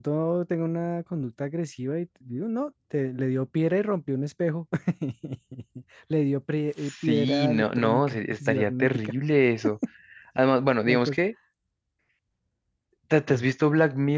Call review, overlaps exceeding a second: present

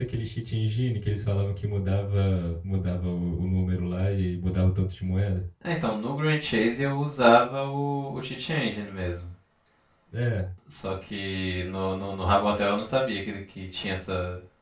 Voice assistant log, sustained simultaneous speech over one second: none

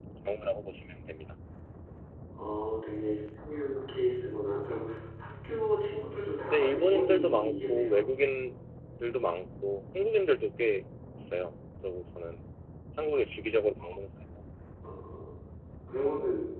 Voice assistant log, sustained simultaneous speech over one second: present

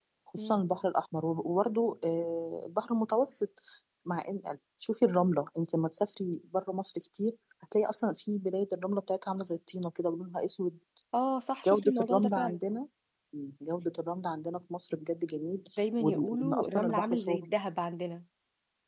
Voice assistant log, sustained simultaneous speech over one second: present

